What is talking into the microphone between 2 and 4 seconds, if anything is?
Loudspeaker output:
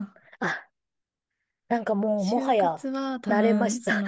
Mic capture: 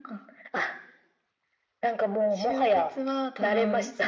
echo only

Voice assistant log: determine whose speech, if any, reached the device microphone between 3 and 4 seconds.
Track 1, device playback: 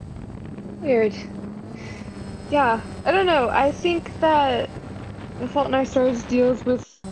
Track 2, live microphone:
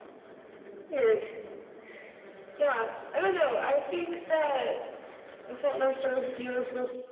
echo only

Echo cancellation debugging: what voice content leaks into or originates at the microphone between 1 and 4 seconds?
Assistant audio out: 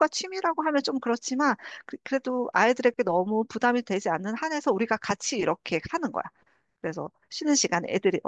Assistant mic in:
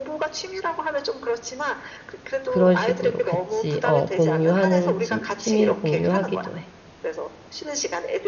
both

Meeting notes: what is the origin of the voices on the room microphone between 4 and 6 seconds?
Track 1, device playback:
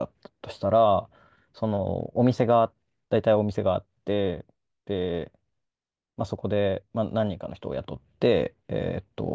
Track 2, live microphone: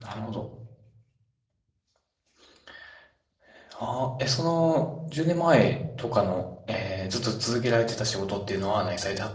user only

